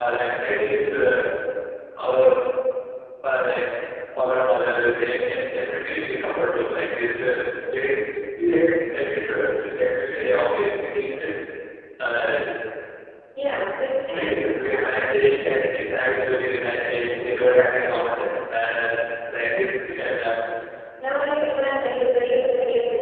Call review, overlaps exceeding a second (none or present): none